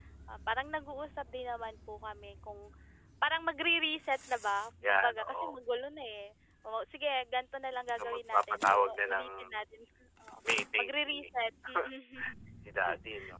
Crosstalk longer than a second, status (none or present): present